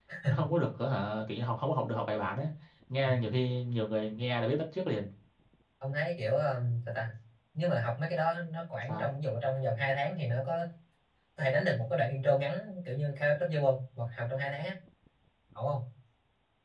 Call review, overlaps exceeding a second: none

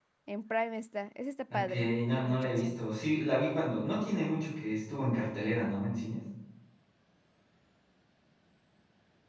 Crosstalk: present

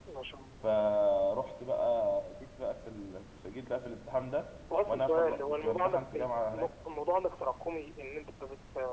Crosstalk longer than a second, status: present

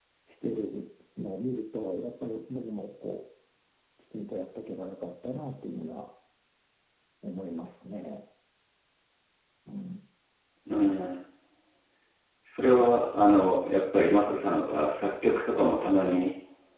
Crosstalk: none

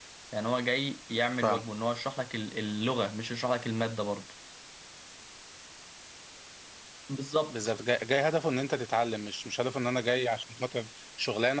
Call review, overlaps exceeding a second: none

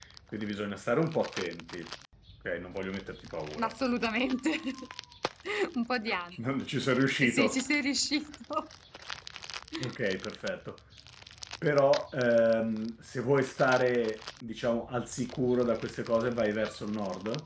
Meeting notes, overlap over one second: none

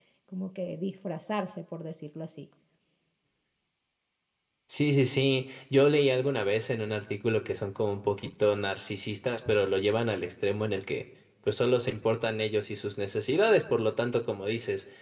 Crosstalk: none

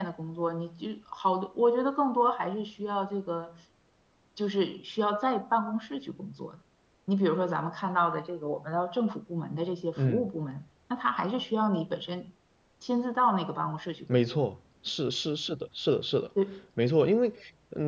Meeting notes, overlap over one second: none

